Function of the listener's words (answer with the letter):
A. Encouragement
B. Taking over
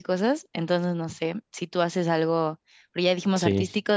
A